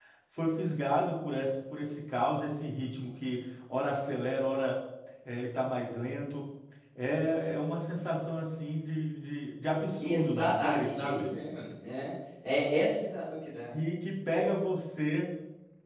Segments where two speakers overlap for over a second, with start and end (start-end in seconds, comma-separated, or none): 10.0-11.3